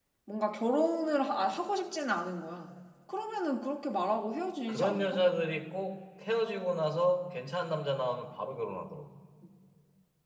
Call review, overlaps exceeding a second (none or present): none